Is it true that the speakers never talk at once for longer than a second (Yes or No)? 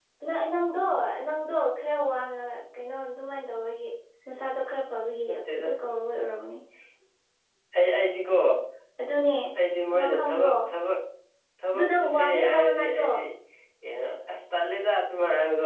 No